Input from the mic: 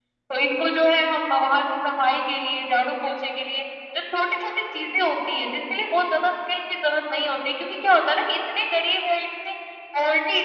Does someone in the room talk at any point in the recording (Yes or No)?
Yes